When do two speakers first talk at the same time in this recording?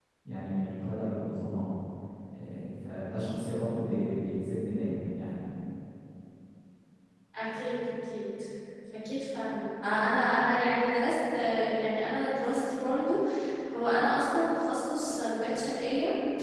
none

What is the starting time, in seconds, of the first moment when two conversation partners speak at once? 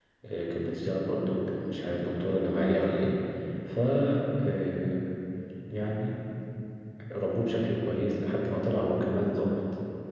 none

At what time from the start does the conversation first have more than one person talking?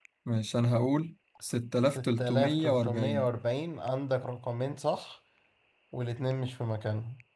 2 s

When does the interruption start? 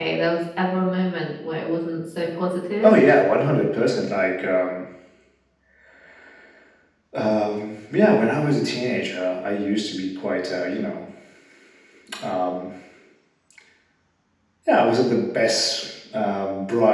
none

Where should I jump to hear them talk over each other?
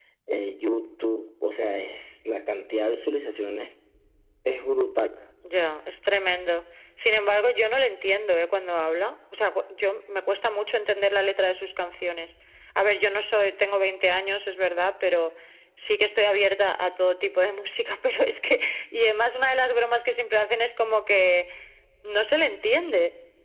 none

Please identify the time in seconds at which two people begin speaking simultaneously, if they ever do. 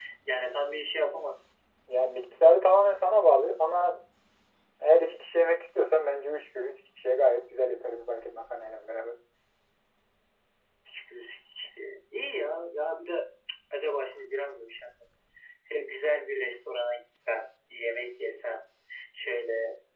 none

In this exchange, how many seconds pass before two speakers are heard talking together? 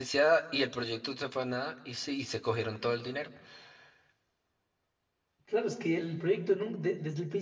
none

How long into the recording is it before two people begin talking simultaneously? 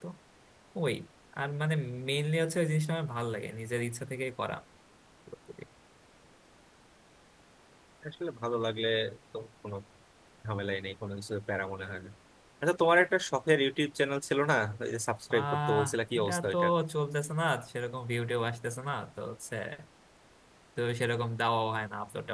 15 s

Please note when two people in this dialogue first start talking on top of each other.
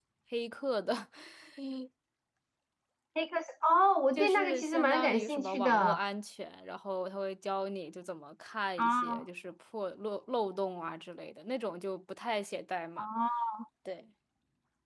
4 s

